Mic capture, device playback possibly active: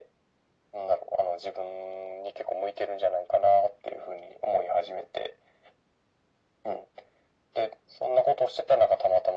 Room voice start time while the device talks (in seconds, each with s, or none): none